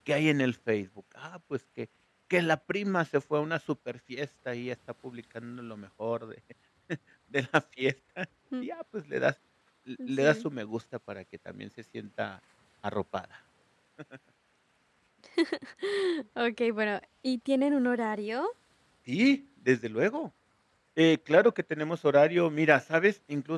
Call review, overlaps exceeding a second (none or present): none